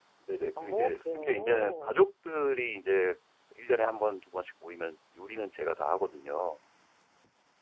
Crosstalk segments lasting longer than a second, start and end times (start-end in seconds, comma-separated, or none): 0.6-2.0